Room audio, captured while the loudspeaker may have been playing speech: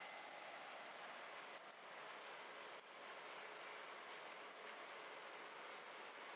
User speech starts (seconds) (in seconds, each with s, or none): none